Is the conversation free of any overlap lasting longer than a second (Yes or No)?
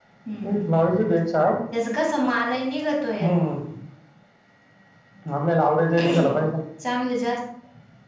Yes